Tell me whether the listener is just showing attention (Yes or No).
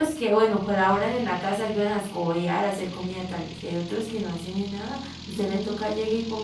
Yes